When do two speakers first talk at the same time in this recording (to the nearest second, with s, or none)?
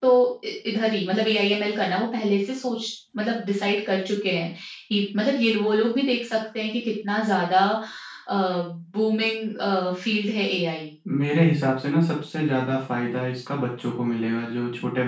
none